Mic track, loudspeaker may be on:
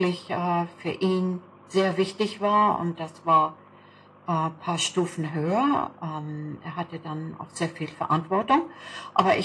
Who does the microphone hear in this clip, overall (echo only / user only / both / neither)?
echo only